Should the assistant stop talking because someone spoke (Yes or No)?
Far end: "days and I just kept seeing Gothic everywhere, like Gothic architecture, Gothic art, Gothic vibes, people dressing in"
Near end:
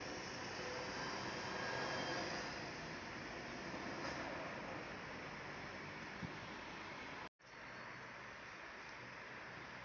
No